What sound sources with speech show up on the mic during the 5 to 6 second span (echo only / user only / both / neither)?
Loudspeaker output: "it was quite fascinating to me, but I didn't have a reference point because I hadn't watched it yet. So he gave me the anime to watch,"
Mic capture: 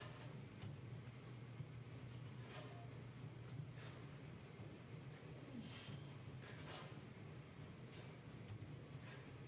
neither